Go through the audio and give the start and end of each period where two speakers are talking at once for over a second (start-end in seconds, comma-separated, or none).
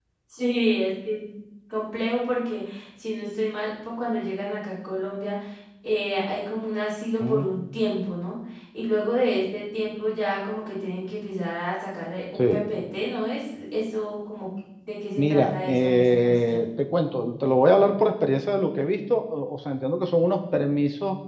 15.2-16.7